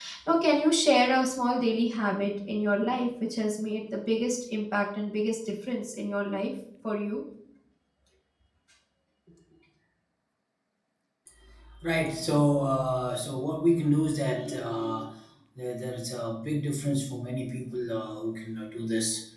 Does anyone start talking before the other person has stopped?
No

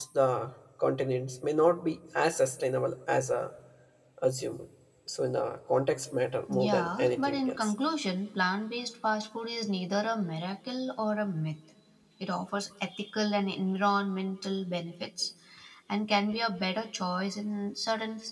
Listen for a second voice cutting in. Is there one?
Yes, from 6.5 s

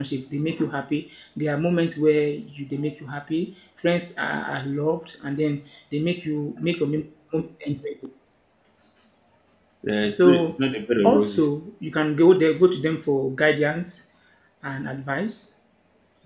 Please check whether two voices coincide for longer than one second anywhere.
No

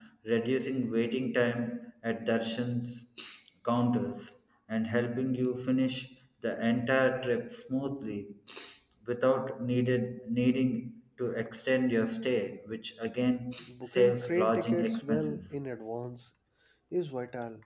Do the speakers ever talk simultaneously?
Yes, from 13.6 s

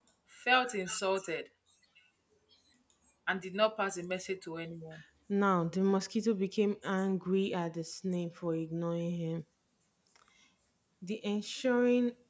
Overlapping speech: No

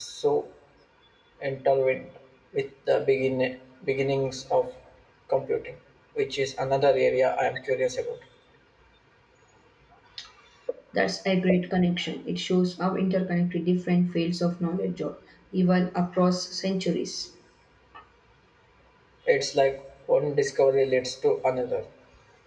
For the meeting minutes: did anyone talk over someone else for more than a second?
No

